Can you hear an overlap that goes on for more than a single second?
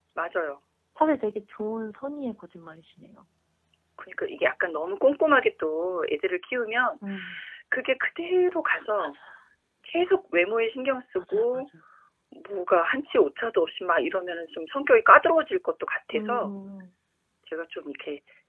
No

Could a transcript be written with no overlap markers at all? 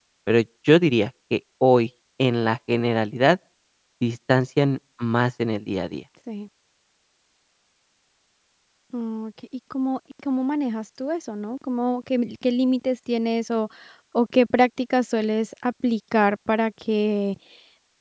Yes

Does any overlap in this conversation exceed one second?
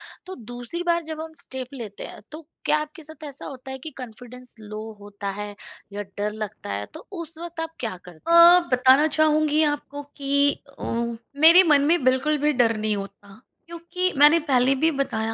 No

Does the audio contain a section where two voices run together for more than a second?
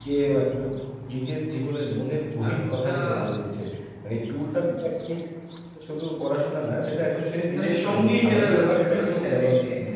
Yes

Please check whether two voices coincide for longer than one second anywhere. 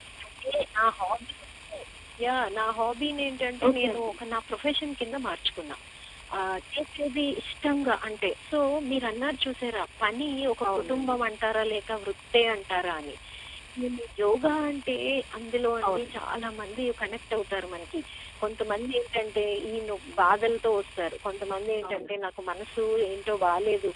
No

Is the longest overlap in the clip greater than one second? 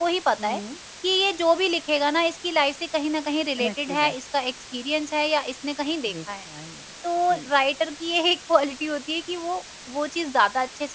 No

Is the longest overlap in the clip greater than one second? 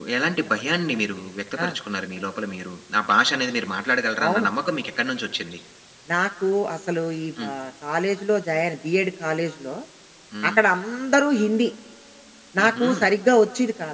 No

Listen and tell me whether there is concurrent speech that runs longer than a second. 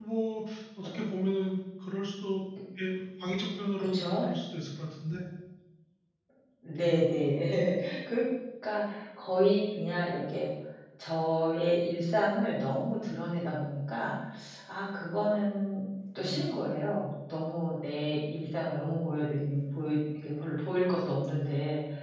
No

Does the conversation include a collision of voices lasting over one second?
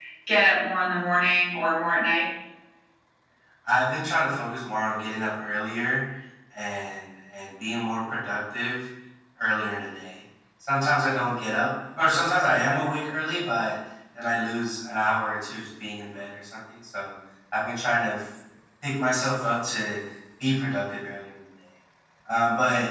No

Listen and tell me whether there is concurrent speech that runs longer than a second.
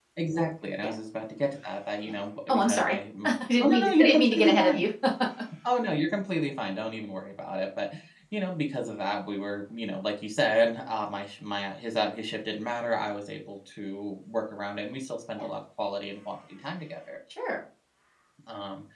Yes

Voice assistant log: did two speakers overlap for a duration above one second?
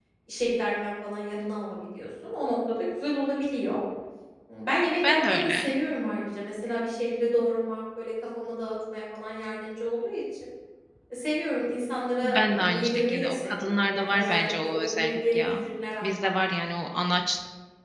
Yes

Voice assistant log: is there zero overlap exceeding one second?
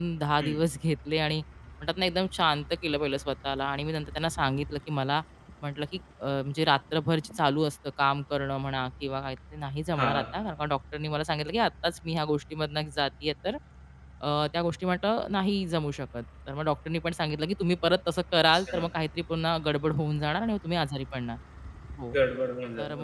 Yes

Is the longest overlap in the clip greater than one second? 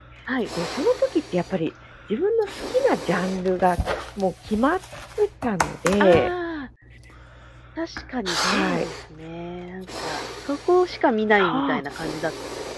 No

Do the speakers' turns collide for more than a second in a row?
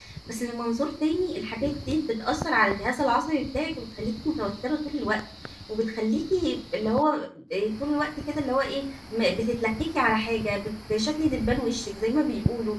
No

